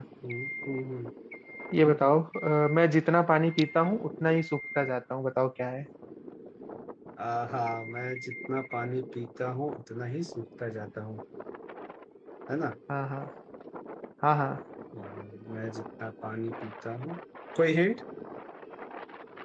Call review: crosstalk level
none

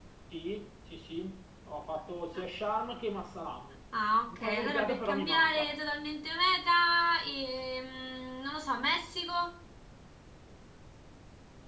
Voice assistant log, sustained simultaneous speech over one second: present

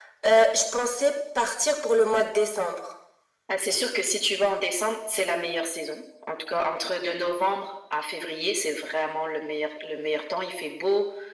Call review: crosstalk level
none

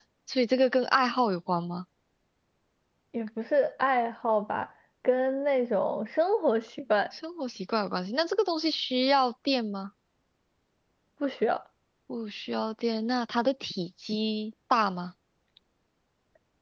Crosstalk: none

